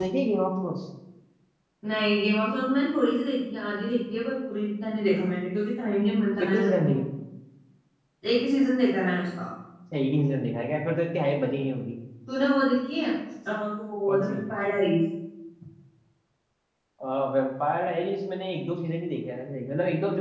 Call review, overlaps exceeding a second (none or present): none